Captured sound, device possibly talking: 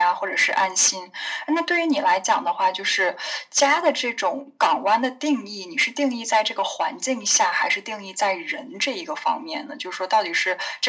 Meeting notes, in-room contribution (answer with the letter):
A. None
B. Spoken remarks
A